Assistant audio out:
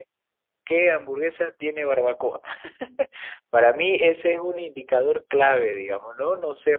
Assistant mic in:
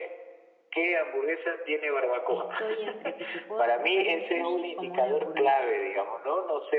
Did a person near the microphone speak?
Yes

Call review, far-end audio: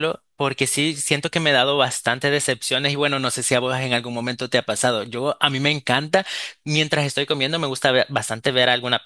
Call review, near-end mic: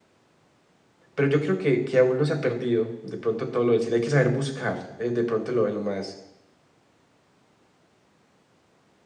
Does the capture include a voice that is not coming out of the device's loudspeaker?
Yes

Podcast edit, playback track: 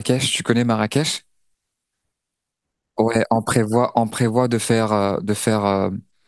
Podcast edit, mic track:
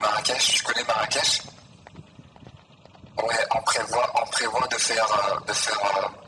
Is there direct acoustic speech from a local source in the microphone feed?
No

